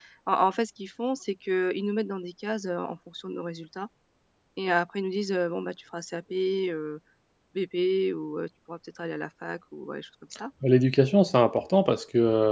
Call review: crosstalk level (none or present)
none